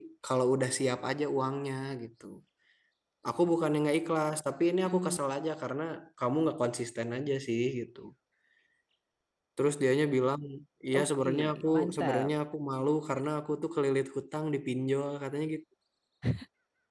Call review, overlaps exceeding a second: present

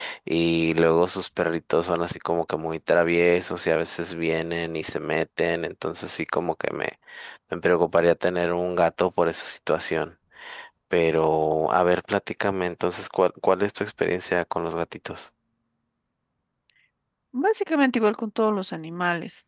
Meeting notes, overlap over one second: none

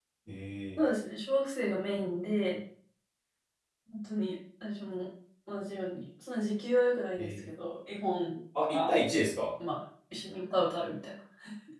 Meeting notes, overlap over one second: none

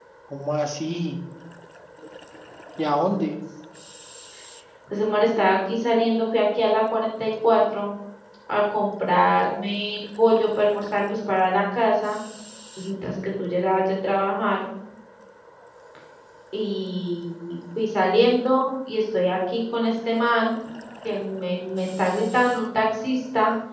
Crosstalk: none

